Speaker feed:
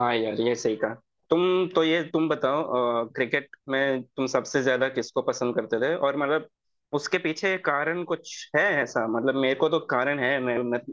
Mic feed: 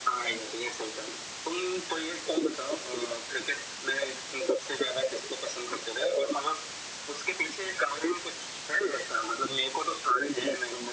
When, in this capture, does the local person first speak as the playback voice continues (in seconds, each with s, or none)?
none